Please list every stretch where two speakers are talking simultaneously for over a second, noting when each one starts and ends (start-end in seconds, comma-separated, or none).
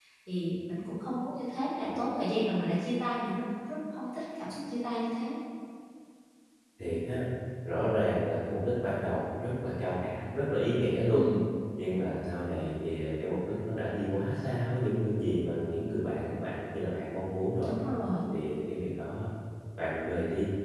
none